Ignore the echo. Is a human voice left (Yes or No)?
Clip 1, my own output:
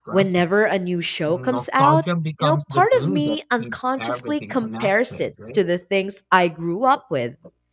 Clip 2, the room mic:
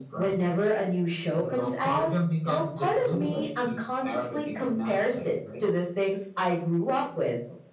No